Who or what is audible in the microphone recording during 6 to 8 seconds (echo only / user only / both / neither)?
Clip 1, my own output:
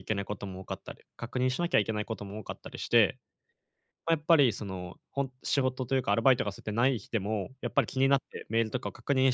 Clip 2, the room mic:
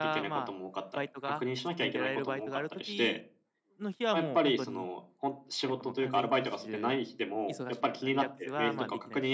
both